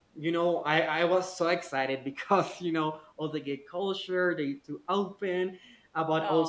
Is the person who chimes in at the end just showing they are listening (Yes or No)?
Yes